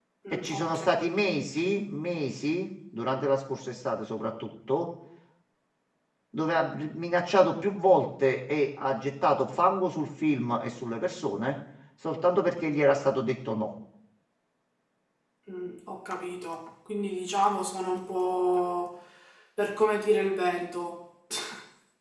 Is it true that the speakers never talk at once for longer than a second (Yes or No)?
Yes